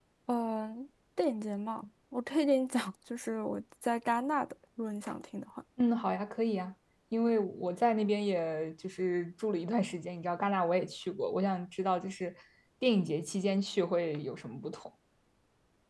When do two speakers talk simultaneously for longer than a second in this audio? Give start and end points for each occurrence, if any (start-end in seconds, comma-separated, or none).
none